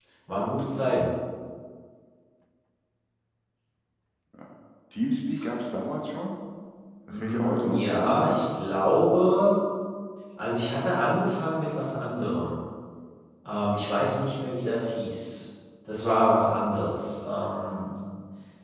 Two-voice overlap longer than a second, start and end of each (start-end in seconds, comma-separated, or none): 7.1-8.4